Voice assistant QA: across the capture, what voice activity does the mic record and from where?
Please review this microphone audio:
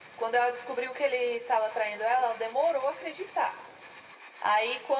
echo only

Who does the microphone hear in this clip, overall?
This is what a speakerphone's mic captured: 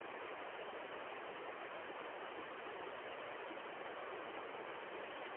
neither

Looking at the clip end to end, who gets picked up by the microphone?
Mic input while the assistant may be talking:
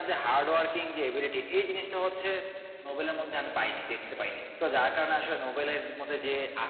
echo only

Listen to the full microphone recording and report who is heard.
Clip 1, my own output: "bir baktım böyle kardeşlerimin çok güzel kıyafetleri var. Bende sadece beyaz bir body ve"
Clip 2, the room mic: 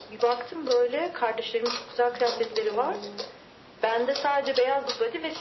both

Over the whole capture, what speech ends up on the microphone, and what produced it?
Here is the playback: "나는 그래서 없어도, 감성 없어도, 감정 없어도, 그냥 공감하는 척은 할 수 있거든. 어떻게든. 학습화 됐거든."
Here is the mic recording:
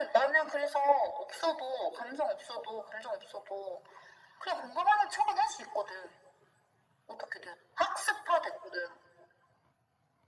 echo only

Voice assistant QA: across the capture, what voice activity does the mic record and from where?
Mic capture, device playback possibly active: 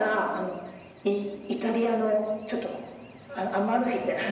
echo only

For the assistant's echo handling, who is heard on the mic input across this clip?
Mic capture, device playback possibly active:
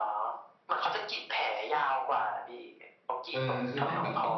both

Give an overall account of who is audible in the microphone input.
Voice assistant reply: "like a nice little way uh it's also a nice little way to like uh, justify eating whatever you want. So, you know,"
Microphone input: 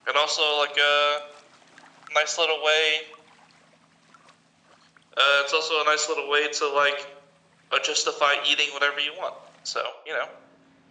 echo only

